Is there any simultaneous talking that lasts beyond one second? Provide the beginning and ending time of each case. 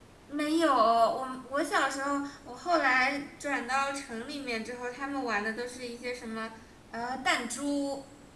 none

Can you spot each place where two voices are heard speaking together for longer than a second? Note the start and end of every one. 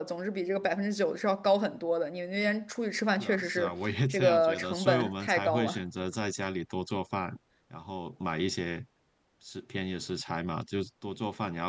3.2-5.8

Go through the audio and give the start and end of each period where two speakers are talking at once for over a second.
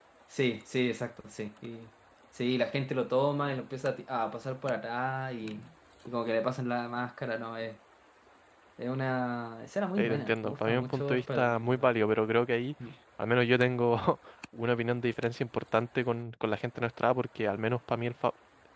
10.0-11.9

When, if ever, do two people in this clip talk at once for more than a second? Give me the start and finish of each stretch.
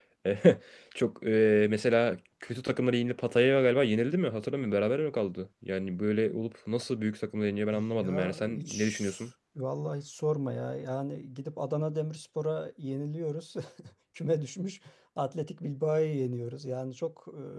7.7-9.0

